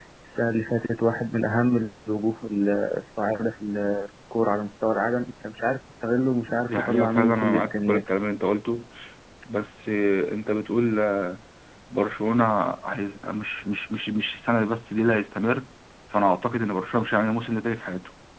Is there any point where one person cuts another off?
Yes, from 6.7 s

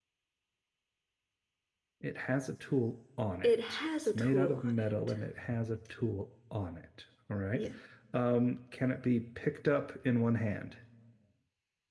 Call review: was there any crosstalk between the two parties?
Yes, from 3.4 s

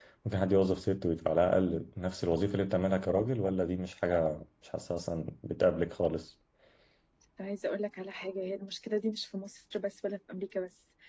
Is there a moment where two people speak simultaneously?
No

